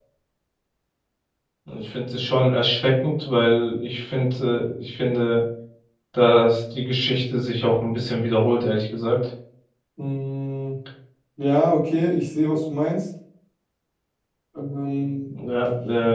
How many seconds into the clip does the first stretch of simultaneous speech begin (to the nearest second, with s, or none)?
none